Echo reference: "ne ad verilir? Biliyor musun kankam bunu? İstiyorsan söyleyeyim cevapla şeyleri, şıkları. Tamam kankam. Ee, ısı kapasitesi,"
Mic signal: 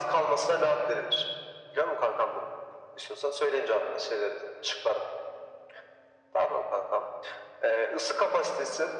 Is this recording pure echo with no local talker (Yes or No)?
Yes